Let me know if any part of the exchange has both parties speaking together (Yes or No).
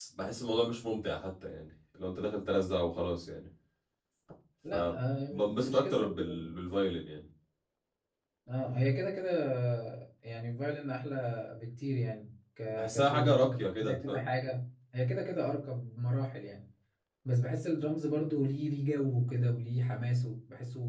Yes